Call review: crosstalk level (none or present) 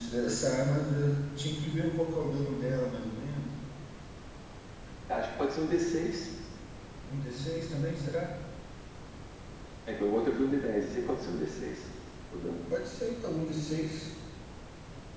none